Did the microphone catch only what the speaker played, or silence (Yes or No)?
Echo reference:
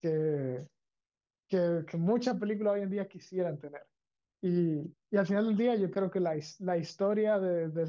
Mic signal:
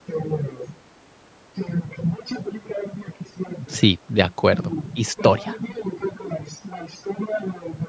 No